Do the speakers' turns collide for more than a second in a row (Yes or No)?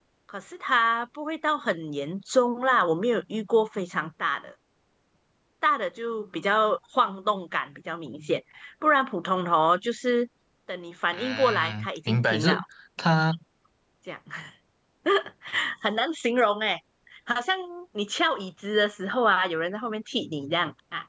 Yes